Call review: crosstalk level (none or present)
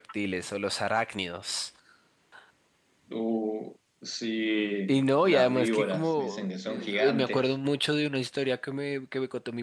present